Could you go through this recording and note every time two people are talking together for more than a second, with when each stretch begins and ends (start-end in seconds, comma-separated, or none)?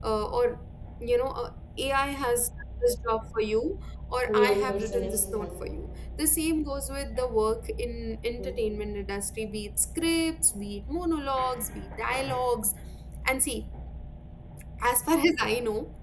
4.3-5.8